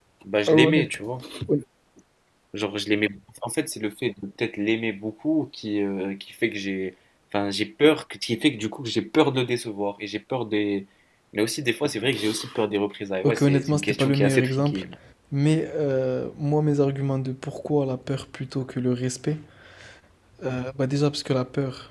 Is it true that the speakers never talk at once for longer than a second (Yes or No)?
No